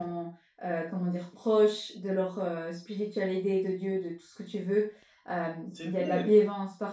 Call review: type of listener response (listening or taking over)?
listening